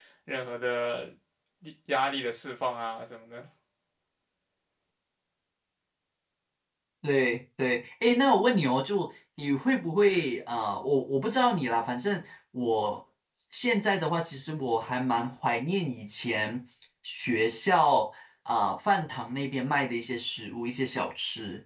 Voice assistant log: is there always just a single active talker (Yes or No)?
Yes